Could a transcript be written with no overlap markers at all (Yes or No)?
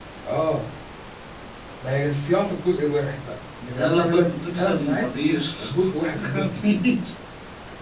No